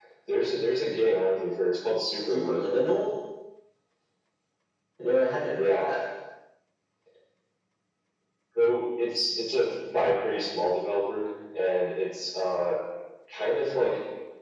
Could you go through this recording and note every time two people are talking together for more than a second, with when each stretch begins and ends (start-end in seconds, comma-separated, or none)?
none